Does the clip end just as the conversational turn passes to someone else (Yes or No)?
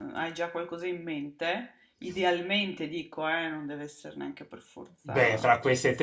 Yes